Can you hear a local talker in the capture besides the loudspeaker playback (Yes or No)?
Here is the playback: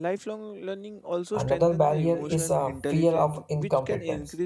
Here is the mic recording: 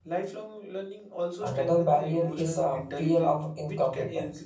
No